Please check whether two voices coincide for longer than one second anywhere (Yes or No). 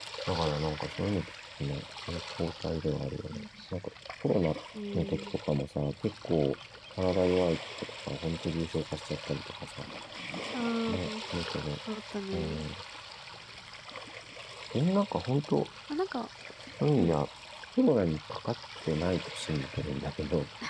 No